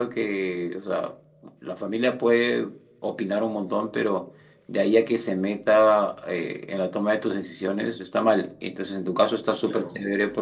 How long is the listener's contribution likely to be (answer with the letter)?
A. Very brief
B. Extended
A